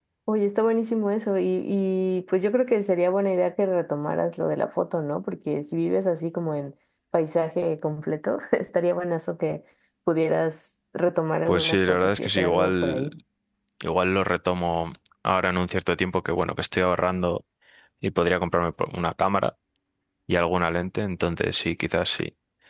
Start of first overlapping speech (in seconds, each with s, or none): 11.5 s